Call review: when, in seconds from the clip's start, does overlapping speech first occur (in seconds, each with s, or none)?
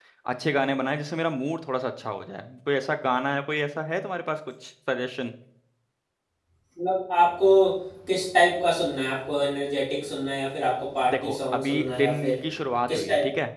11.1 s